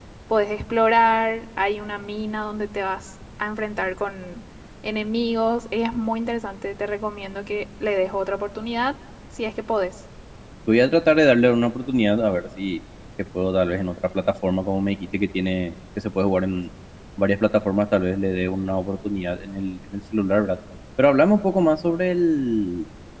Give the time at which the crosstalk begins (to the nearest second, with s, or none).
none